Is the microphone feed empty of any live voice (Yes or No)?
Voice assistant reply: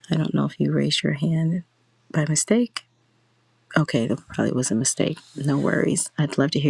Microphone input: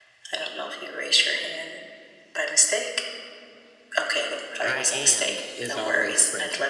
No